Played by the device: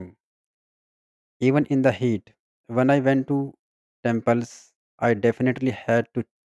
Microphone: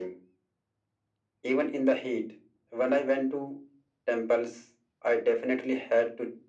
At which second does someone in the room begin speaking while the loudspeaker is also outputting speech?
none

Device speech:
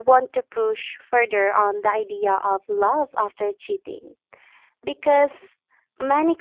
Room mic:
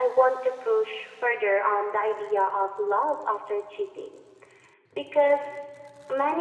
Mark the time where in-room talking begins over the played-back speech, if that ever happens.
none

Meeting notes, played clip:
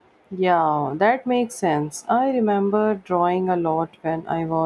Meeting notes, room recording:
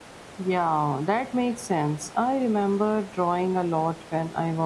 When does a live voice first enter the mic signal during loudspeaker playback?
none

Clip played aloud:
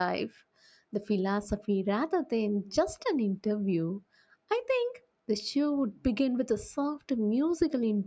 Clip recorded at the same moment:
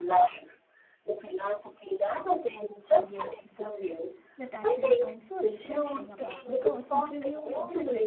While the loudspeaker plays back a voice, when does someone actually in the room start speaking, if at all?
2.9 s

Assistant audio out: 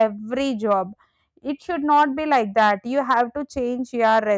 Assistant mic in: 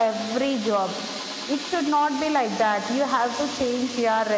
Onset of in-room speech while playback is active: none

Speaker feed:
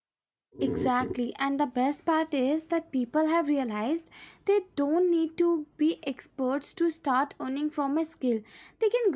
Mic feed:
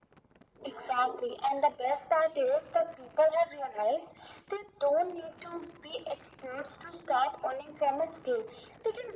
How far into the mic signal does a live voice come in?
none

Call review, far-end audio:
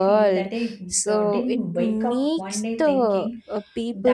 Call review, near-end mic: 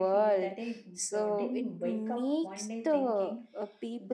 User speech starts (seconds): none

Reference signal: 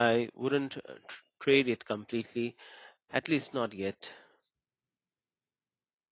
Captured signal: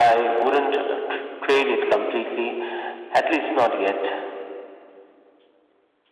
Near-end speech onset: none

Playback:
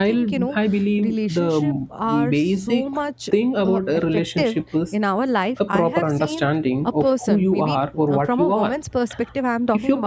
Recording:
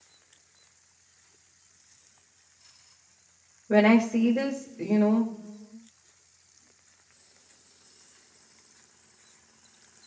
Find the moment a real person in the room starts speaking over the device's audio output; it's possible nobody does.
3.6 s

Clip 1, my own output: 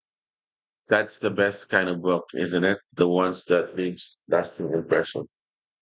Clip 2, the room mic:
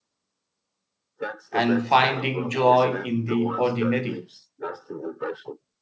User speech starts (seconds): 1.5 s

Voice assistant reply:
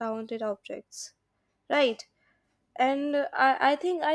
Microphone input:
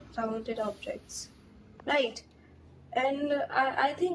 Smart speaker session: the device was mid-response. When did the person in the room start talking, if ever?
none

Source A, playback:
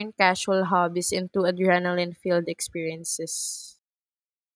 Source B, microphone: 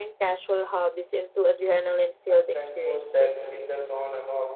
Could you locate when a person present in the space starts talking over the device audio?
2.3 s

